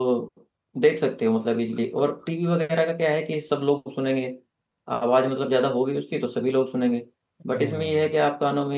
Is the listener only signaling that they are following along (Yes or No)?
Yes